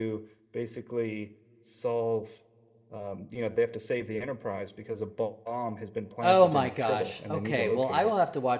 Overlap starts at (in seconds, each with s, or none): 6.2 s